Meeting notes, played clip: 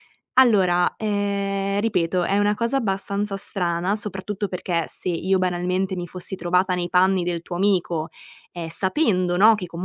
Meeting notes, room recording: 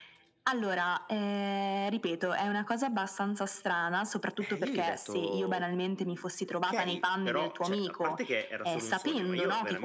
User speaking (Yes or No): Yes